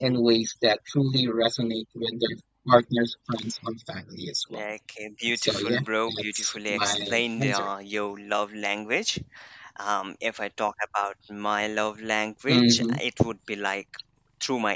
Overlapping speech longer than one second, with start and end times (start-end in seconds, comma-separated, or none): 6.2-7.7